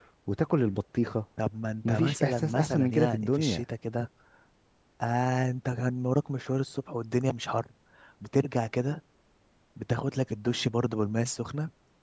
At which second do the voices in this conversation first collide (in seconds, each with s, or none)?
1.8 s